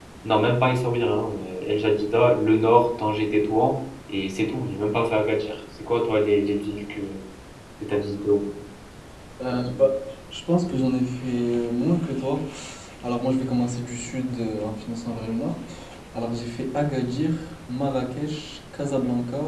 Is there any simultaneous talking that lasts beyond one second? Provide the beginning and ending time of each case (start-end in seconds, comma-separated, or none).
none